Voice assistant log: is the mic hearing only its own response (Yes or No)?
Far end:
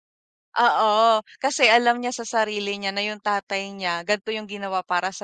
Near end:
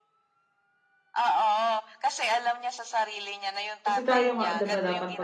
No